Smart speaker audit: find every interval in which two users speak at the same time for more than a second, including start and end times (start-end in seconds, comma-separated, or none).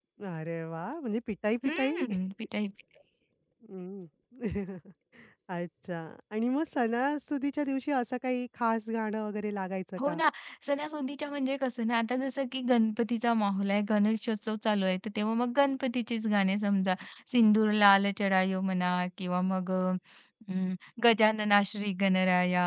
none